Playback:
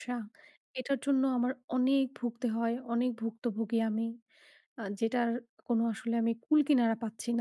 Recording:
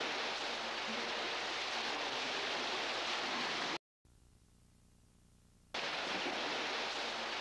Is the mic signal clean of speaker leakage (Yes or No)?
Yes